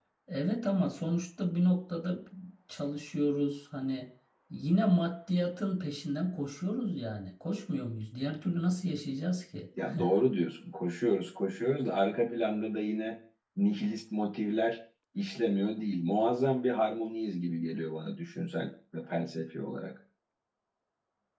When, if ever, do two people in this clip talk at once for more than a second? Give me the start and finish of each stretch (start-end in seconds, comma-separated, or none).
none